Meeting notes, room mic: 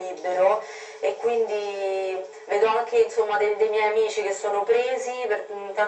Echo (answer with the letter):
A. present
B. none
A